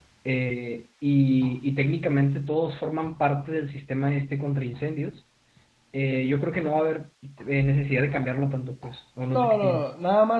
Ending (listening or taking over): taking over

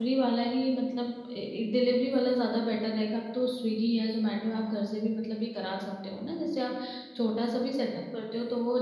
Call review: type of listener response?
listening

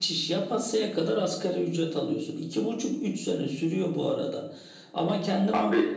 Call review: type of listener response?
listening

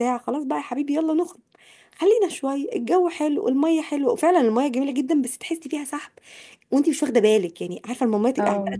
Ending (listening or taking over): listening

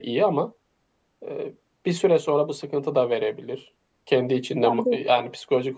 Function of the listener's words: listening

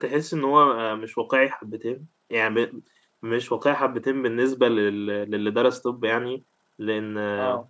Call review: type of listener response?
listening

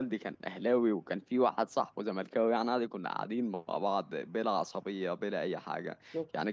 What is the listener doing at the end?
listening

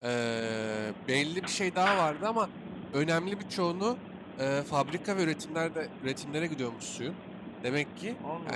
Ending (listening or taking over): listening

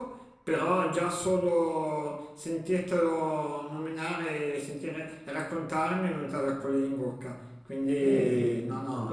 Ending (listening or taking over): taking over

